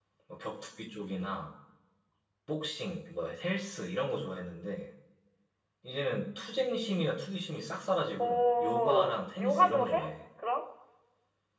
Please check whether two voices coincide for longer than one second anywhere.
Yes, from 8.2 s

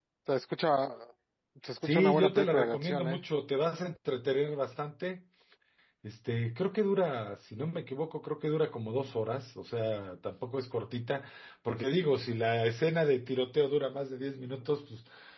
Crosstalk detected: Yes, from 1.8 s

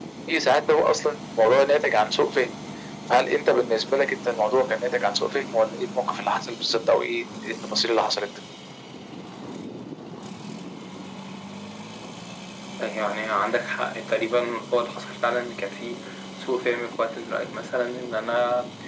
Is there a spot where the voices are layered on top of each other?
No

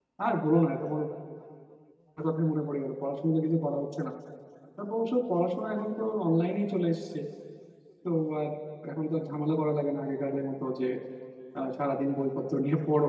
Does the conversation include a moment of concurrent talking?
No

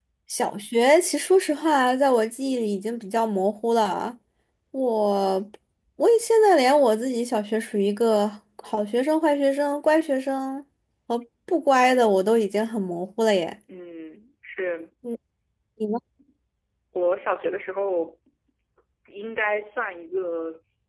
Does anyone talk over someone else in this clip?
No

